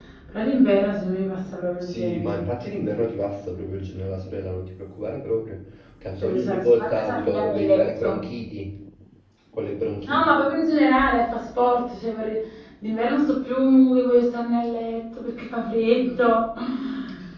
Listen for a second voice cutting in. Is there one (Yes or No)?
Yes